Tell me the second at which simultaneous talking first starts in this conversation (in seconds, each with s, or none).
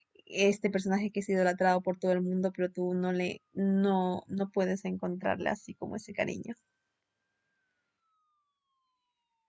none